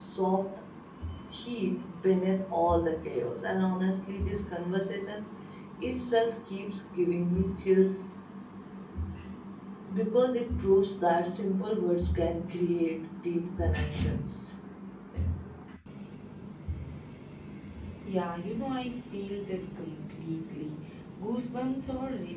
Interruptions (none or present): none